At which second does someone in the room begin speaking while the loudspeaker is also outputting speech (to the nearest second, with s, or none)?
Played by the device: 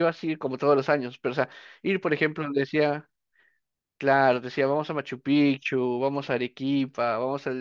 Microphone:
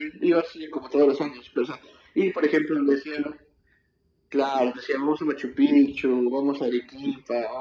none